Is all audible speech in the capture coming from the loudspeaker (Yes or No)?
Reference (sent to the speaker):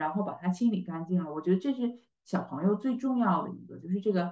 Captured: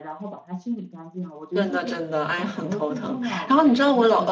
No